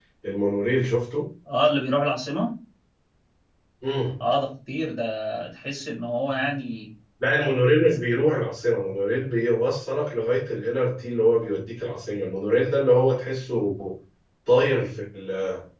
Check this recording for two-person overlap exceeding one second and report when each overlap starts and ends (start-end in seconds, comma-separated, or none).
none